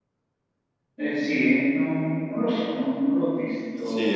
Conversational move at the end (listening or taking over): taking over